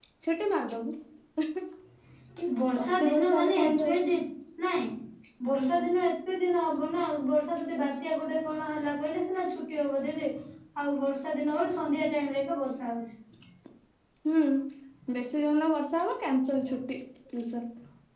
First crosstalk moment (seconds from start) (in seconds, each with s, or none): 2.8 s